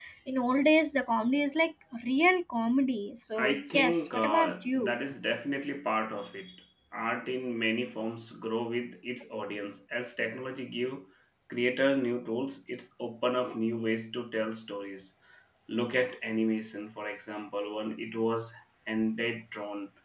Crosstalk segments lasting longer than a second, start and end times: 3.4-5.0

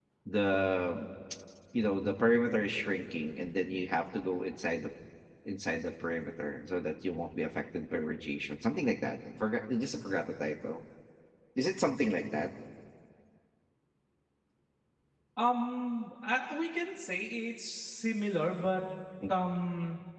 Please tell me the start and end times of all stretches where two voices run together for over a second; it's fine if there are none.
none

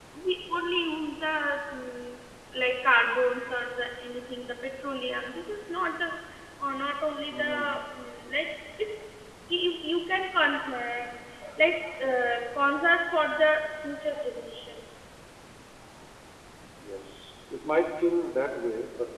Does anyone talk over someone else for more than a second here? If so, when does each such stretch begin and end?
none

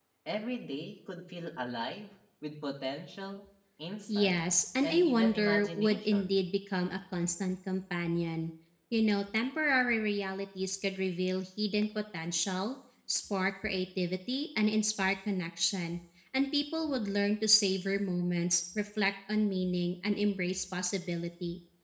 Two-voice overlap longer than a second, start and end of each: 4.8-6.4

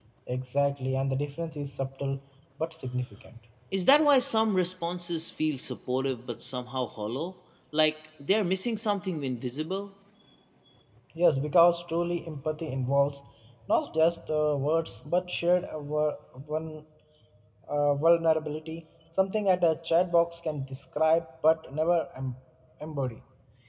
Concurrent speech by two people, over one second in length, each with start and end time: none

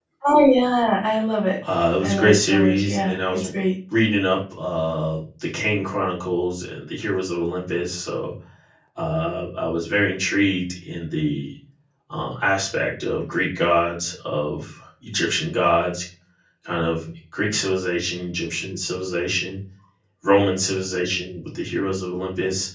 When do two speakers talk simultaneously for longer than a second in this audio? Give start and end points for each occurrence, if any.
2.0-3.4

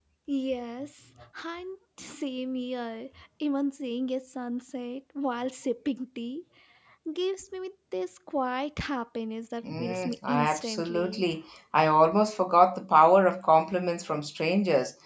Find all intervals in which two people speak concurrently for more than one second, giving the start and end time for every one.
9.8-11.2

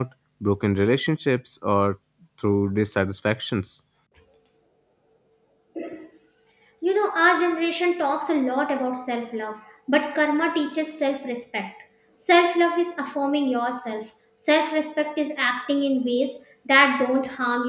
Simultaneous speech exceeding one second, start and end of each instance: none

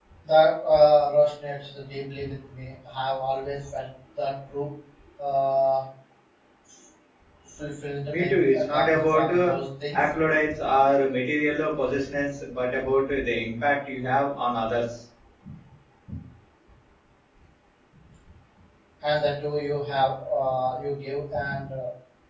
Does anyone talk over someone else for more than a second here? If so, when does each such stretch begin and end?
8.1-9.6

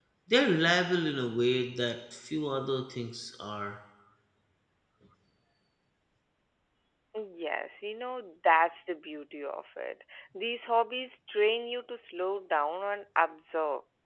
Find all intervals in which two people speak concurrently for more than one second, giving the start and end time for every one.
none

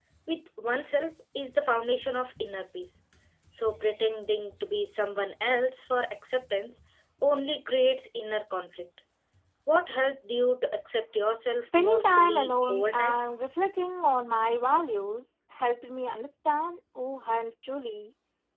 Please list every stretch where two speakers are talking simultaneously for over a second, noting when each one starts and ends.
11.6-13.2

